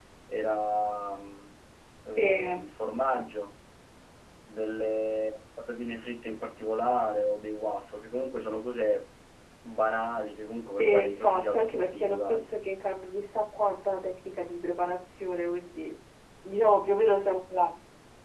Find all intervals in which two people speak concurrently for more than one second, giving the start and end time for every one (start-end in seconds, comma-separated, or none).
10.8-12.5